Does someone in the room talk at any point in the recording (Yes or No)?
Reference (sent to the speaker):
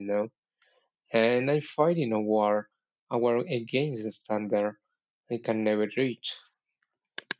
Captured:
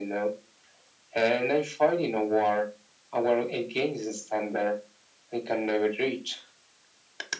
No